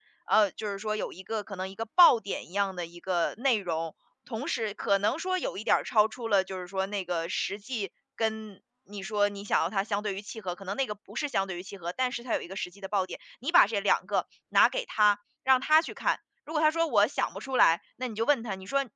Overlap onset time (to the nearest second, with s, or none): none